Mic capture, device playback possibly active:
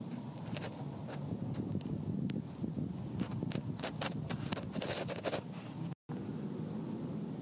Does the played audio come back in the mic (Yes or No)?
No